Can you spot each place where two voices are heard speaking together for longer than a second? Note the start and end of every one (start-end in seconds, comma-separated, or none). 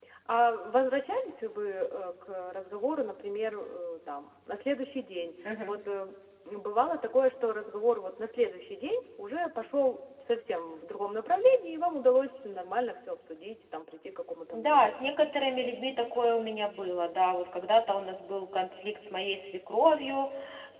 none